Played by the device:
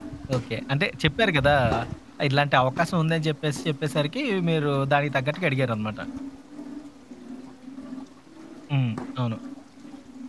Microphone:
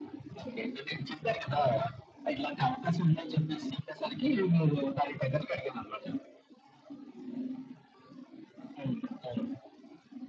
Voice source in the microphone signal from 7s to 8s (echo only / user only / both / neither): neither